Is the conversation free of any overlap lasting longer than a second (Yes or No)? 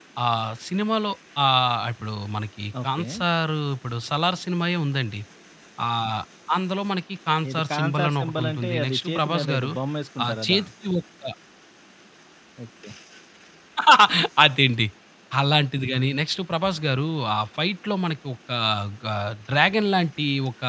No